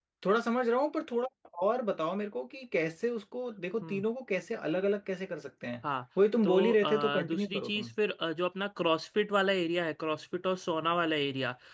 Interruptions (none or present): present